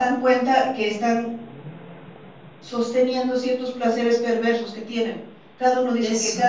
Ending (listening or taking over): listening